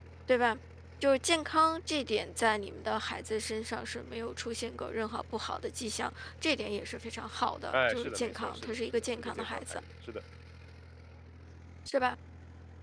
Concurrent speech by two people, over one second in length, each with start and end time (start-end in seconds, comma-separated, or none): 7.7-9.8